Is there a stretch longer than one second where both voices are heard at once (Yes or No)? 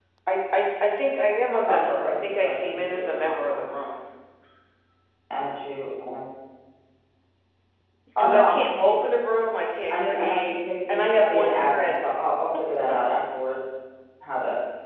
Yes